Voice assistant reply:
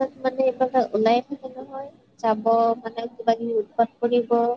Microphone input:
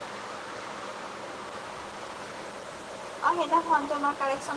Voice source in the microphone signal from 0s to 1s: neither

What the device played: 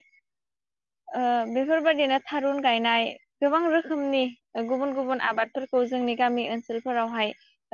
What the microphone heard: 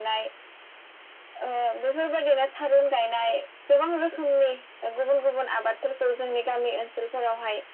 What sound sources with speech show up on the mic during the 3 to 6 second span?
echo only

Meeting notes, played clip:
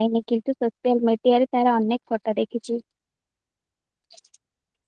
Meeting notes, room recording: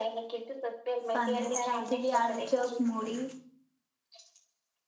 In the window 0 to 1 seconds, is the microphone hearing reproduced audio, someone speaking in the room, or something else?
echo only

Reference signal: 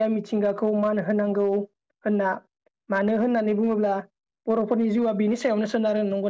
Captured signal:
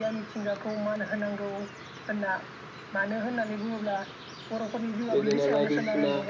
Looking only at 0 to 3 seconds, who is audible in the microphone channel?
echo only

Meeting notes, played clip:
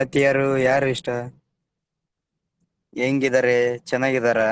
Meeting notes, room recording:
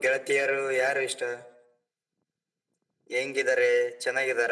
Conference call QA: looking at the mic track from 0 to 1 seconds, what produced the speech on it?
echo only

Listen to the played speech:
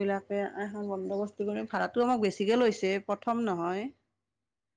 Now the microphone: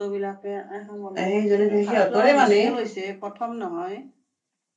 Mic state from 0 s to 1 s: echo only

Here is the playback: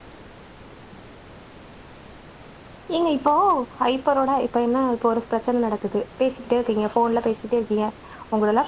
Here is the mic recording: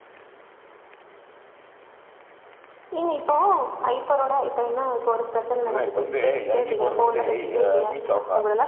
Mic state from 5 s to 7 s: both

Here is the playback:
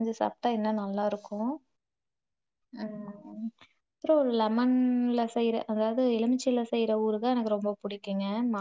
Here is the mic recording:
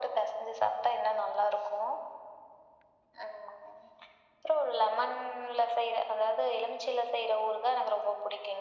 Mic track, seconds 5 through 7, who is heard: echo only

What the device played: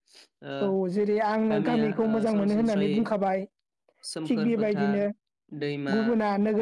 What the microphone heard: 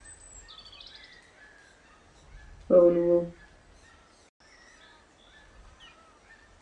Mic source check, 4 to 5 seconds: neither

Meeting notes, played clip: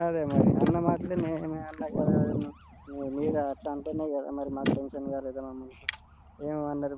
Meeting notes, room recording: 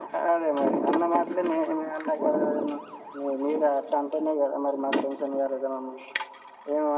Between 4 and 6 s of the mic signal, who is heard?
echo only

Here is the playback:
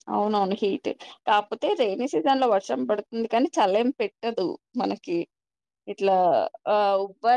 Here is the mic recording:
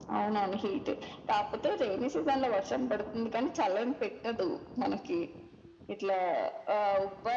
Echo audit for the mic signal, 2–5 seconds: echo only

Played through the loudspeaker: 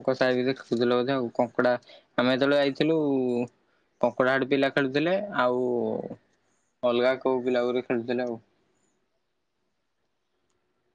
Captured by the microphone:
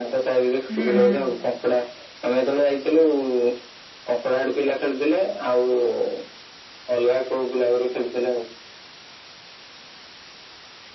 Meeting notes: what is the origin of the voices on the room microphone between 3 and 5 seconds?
echo only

